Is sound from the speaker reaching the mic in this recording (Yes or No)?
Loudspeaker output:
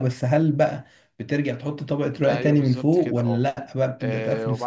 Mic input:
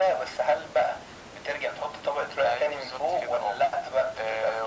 Yes